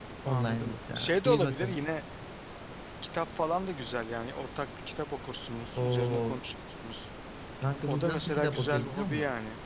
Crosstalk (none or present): present